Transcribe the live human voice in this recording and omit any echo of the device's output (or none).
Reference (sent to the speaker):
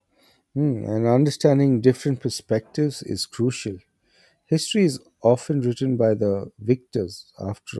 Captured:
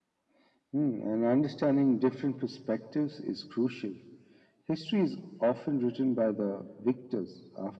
none